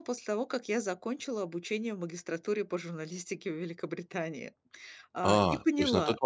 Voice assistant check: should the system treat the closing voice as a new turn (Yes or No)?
Yes